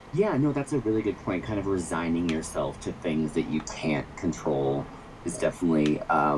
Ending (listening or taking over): listening